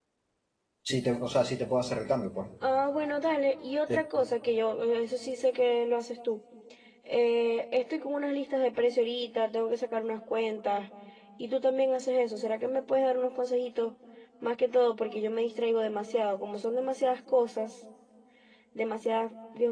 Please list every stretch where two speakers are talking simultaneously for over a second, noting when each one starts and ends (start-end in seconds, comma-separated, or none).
none